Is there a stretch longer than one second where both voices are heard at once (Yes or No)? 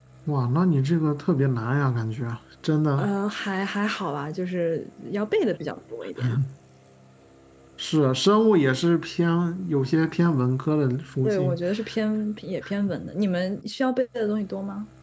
No